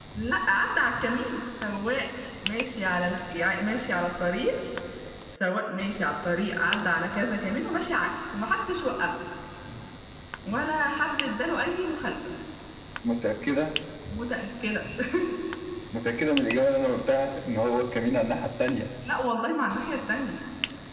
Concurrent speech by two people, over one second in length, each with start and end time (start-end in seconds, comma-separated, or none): none